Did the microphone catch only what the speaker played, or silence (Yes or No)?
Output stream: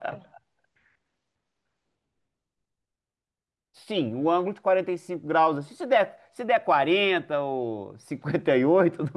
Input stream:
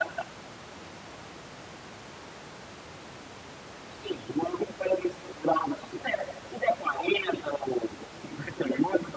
Yes